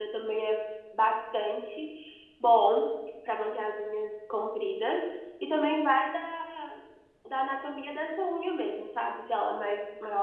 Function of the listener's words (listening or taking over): listening